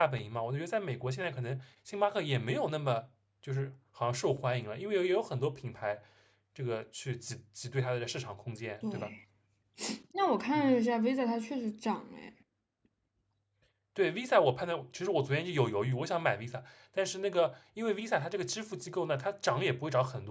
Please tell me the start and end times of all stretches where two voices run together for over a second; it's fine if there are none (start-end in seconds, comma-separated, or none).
none